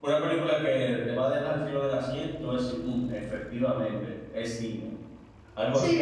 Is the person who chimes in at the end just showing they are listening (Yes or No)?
No